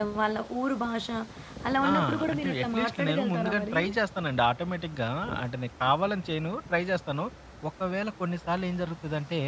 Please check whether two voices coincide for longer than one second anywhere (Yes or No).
Yes